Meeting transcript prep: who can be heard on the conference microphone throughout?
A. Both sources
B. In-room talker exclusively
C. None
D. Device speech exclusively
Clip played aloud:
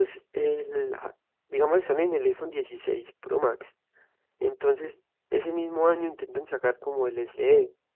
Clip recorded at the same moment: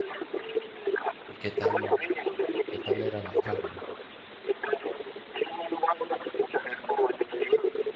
A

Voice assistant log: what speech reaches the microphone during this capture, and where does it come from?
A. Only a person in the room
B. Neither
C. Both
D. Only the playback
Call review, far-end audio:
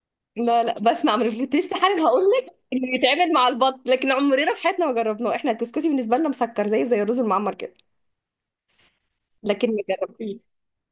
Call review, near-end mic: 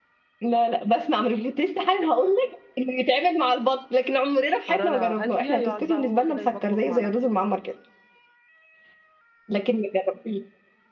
C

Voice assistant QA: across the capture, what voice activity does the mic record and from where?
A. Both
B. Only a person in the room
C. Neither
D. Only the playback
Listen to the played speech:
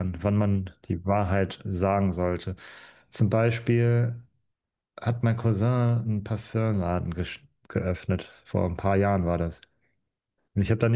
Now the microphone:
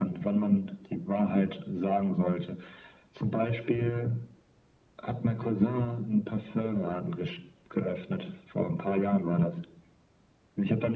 D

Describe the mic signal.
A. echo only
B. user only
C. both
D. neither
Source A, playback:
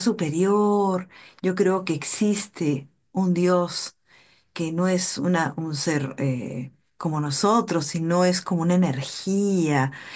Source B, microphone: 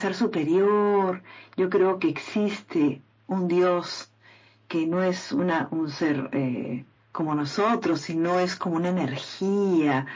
A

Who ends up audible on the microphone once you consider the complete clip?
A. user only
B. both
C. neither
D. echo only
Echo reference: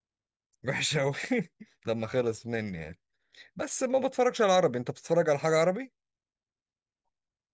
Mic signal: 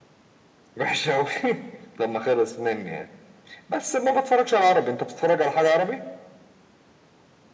D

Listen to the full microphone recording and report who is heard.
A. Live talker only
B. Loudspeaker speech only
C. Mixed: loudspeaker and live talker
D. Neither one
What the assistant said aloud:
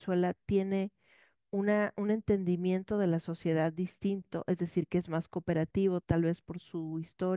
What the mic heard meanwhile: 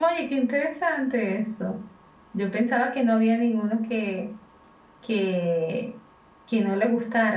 A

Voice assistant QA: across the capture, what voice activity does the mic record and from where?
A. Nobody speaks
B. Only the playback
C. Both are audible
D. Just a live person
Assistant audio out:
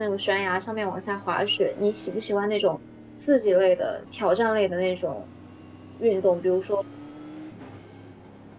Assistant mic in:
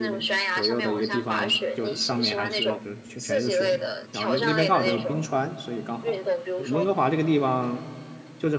C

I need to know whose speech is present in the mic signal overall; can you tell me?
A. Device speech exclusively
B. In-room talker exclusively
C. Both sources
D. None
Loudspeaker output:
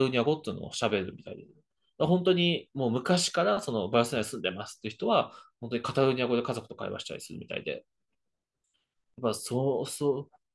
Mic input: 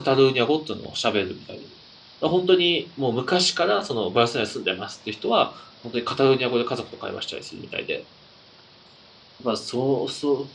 A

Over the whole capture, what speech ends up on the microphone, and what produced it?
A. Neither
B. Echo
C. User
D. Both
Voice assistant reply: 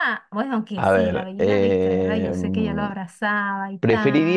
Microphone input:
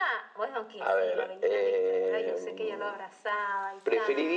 B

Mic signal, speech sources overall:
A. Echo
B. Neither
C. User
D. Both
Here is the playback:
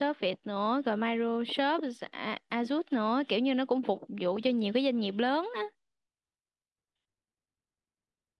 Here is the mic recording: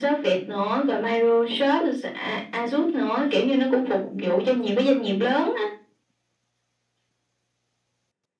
A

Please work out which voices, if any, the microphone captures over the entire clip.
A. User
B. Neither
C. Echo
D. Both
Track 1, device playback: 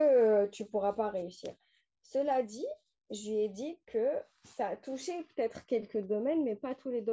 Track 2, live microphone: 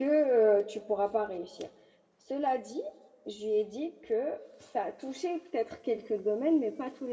C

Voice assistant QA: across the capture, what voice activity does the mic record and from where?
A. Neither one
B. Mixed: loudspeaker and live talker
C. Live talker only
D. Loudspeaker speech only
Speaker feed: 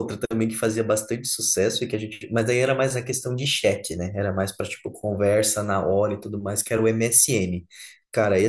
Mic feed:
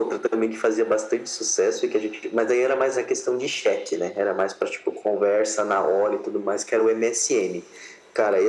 D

